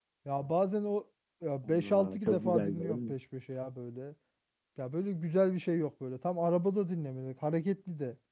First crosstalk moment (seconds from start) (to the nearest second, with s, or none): 2 s